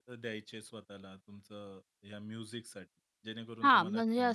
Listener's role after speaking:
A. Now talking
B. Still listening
A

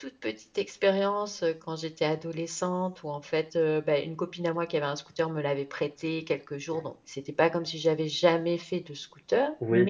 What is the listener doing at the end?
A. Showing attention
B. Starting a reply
B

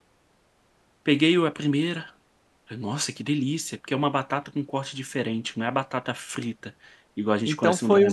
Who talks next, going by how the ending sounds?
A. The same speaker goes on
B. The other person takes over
B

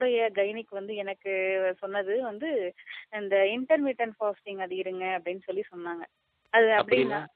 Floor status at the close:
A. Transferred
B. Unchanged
B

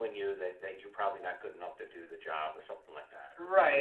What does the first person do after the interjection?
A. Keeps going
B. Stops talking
B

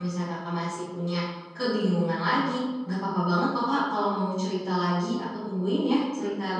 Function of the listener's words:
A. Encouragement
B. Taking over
B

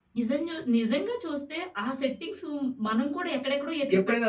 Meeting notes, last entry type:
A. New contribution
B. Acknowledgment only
A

